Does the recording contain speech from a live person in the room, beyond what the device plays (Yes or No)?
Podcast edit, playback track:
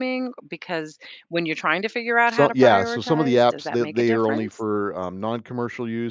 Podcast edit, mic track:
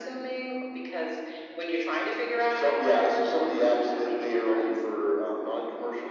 No